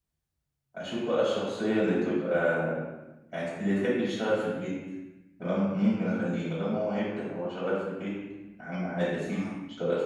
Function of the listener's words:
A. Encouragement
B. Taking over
A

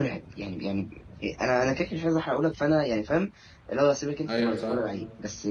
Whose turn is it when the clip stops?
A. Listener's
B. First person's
B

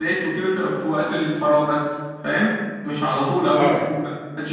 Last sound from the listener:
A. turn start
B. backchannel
B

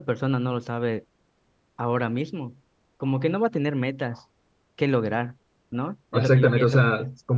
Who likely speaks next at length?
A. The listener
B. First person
A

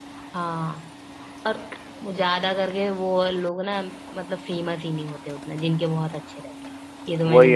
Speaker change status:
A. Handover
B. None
A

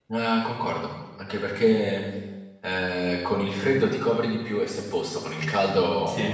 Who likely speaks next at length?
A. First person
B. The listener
A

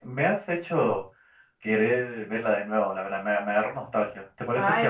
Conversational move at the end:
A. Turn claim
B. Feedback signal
A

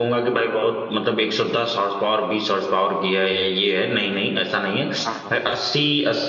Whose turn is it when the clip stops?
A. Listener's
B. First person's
B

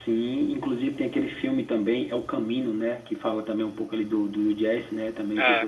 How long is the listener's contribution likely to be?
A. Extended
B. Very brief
A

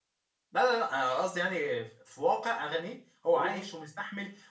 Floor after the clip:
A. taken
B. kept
B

